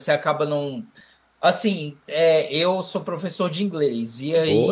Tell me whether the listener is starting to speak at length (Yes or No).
No